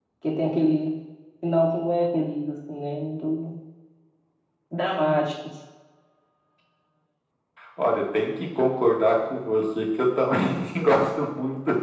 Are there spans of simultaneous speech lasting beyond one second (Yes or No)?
No